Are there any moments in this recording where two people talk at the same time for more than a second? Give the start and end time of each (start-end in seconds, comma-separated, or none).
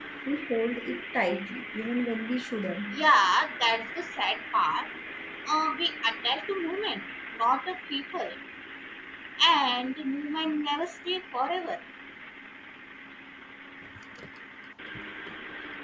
none